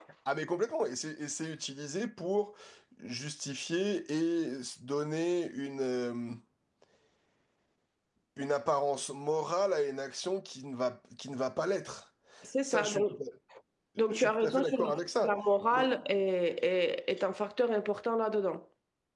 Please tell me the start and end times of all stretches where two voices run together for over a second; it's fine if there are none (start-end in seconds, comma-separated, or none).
14.1-15.3